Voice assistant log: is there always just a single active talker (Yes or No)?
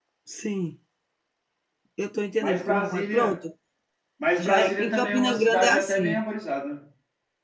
No